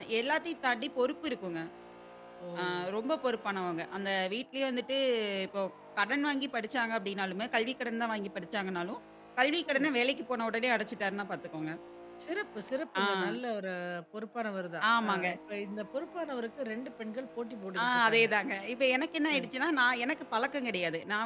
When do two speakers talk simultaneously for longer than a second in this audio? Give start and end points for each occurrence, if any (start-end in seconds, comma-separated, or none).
none